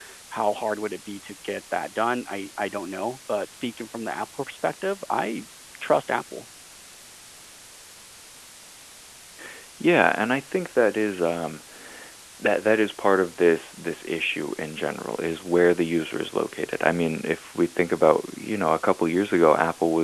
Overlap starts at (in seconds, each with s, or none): none